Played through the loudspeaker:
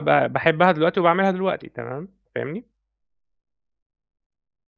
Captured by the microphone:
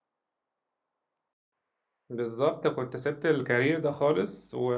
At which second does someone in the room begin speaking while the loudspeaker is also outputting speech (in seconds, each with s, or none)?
2.1 s